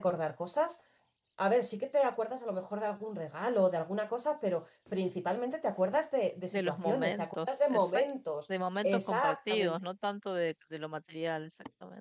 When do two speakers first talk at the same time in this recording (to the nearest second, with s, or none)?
7 s